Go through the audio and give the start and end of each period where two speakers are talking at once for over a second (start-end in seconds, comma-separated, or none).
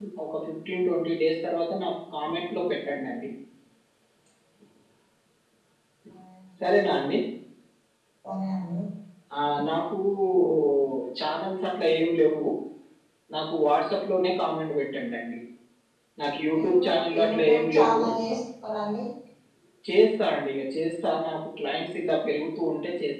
16.5-18.0